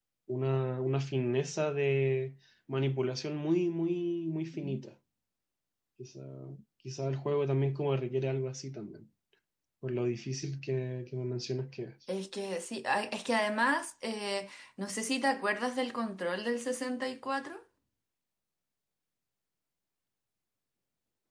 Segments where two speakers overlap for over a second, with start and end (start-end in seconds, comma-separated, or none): none